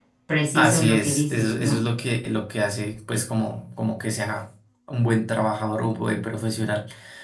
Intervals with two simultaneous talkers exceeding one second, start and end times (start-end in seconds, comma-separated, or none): 0.6-1.8